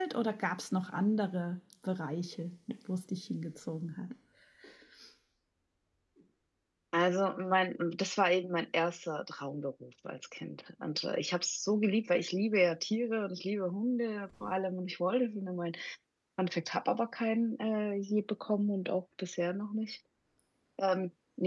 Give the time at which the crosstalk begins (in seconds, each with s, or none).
none